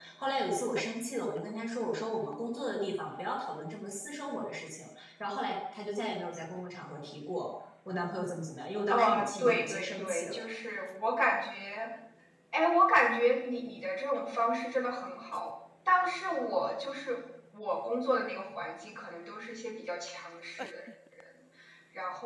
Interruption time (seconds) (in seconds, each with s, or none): 8.9 s